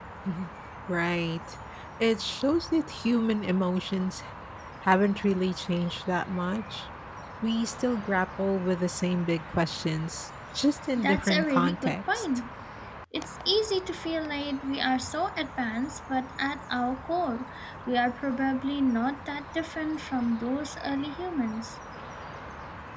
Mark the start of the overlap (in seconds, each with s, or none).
11.0 s